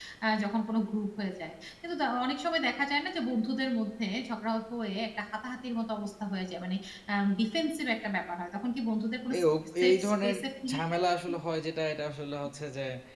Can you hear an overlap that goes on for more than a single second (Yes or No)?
Yes